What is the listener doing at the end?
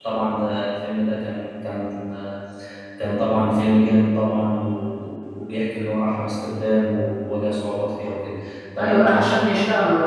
taking over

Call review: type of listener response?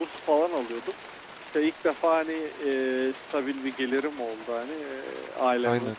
listening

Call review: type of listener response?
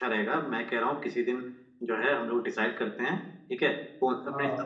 listening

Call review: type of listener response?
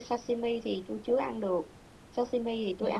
listening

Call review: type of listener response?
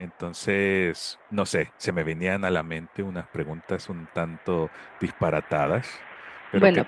taking over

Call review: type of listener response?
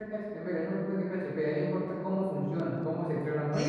taking over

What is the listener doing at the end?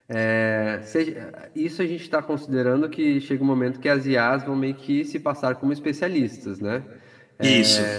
listening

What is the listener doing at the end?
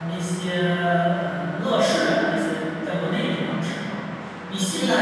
listening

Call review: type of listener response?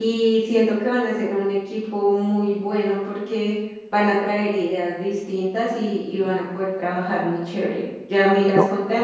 listening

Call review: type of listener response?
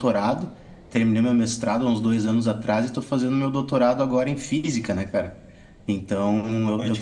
listening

